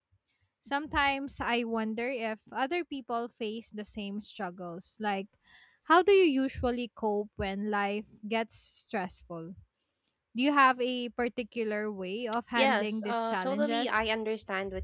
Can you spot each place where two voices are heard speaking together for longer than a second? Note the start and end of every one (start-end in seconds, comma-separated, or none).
12.6-14.1